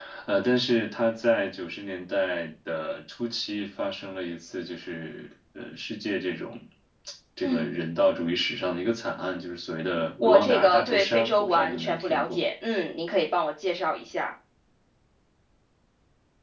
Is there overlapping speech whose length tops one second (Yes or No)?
Yes